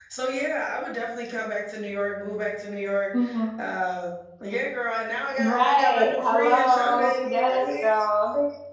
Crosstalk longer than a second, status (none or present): present